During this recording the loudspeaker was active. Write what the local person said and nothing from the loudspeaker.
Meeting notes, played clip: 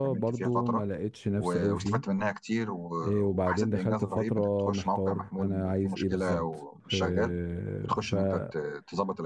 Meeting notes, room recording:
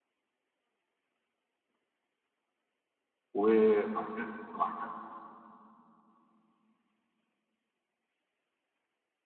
وبعد كده بعد كده

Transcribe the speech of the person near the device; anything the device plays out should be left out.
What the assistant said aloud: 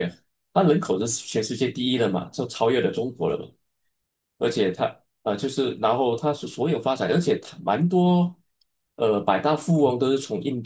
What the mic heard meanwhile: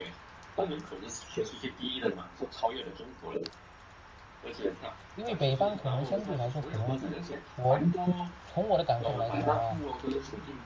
因为北方可能相对来说，可能我从我的感受来看的话，

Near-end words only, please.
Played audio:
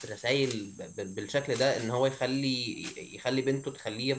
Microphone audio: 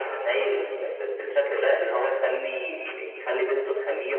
none

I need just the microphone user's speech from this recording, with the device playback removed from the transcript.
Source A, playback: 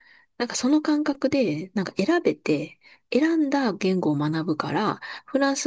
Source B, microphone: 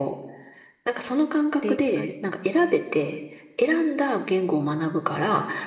レイク、あれ、はい。

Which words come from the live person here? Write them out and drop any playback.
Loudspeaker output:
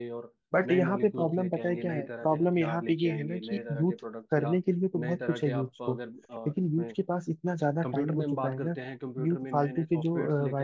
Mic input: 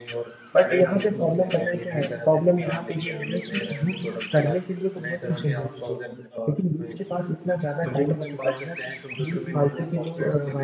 none

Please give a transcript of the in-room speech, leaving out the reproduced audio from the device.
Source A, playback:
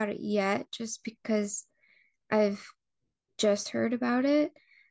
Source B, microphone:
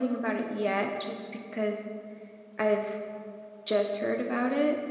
none

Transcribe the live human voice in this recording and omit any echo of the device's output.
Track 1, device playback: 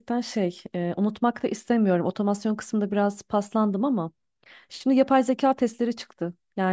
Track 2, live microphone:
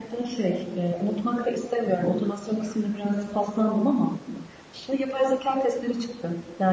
none

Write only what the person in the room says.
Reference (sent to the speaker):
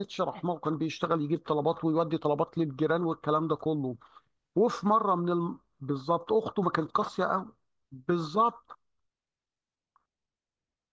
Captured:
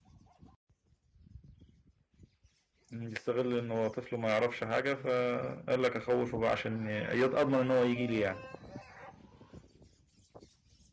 يستغل ان هو طفل ما يعرفش حاجة فقال لك اخوفه بقى عشان ي- اضمن ان هو يجي لي يعني

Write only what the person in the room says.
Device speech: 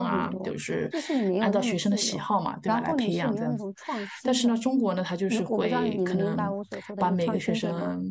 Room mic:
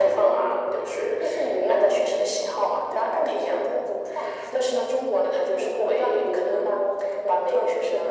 none

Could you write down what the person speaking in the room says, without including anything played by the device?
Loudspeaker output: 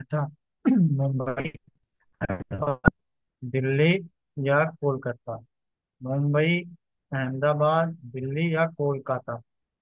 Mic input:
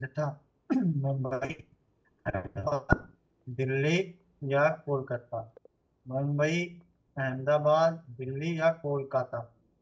none

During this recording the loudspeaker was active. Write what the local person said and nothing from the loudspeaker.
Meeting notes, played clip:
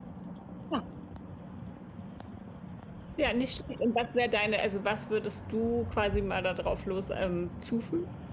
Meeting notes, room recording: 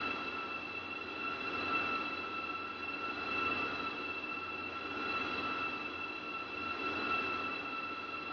none

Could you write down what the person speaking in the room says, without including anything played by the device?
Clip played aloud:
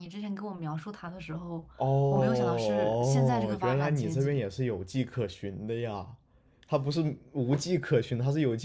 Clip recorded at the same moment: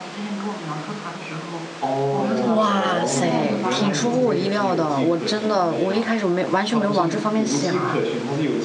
哇塞，挺出乎我意料的。我真的，我一开始没完全没有往这方面想。

